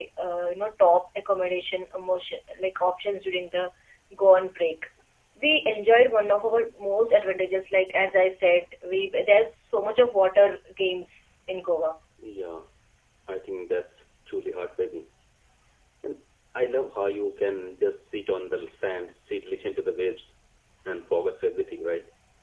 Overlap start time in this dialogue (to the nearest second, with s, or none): none